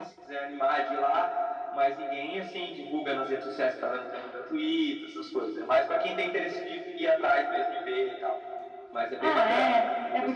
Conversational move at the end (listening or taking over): taking over